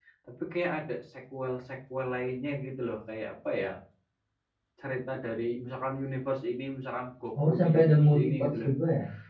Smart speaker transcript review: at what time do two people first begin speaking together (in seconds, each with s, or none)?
7.3 s